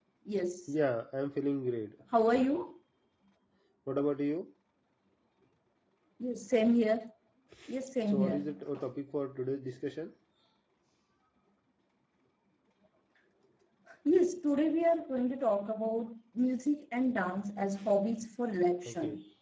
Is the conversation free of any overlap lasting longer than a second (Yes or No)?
Yes